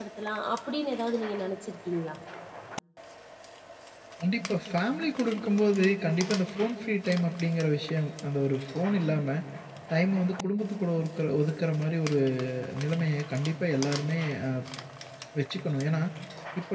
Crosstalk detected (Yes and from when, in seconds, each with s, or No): No